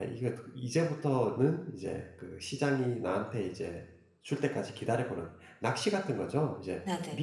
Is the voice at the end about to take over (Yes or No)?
No